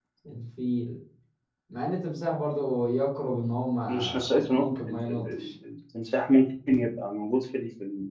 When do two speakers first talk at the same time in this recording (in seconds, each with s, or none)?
3.9 s